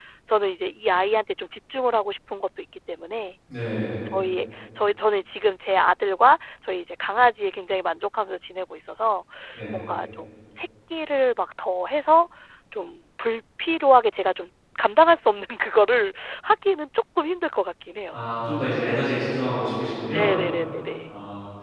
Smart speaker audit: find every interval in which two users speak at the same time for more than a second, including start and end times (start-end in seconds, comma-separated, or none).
none